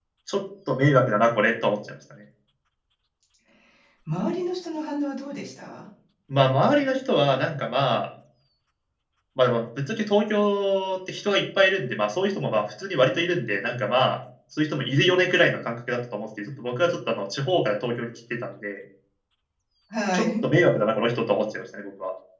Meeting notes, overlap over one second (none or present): none